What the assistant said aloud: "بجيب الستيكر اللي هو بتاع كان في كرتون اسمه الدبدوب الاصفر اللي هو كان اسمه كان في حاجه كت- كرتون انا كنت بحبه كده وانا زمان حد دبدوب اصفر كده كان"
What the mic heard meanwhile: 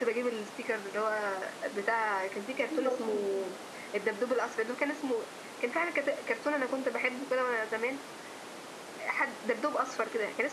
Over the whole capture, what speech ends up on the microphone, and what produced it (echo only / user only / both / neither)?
both